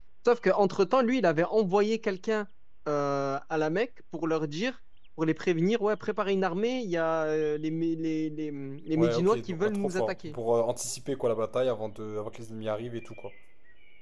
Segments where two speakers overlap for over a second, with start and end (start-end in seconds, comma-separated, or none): 8.9-10.3